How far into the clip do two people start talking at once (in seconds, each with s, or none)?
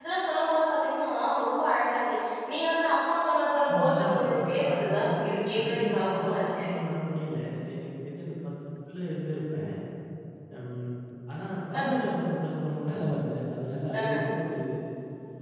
3.7 s